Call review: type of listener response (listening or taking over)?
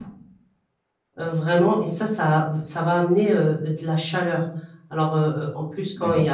listening